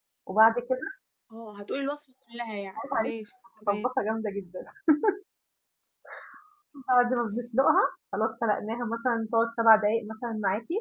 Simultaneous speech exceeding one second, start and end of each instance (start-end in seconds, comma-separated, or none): none